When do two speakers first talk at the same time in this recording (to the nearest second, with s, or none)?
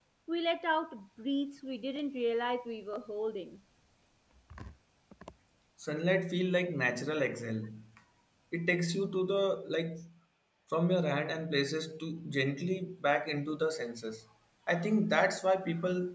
none